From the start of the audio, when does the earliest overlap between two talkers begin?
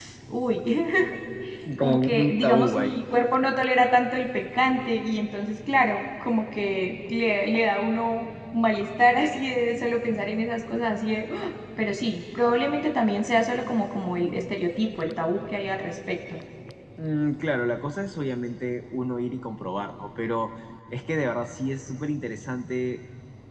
2 s

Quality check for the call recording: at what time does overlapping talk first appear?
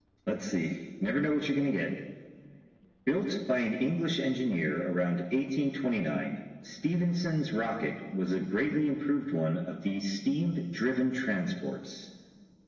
none

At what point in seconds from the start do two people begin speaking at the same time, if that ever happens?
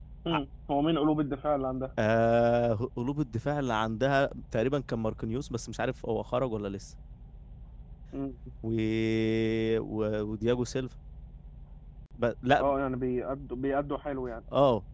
none

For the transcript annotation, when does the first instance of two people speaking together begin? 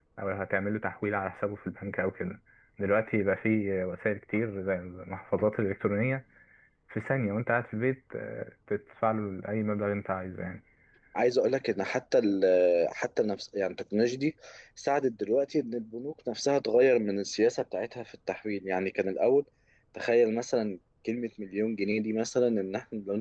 none

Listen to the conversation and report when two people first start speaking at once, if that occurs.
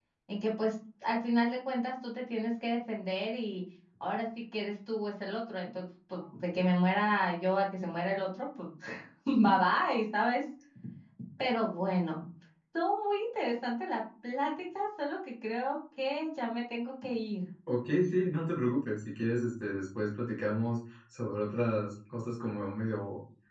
none

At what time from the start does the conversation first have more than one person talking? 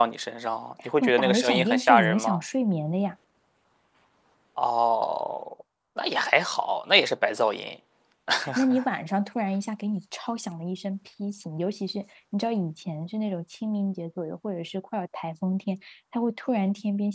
1 s

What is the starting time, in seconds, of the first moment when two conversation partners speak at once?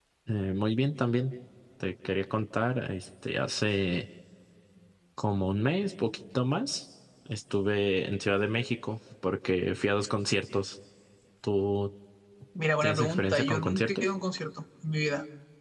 13 s

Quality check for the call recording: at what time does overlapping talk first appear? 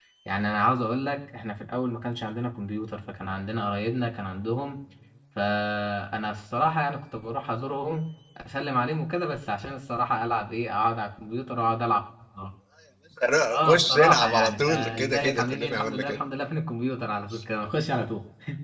14 s

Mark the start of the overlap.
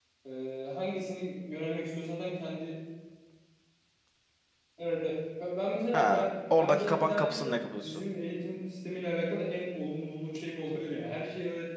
6 s

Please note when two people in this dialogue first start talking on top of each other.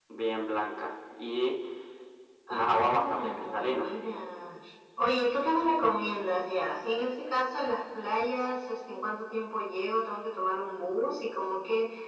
2 s

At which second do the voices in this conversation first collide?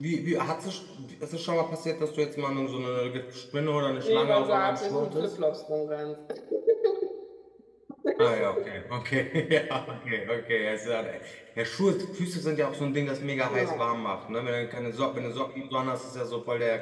4 s

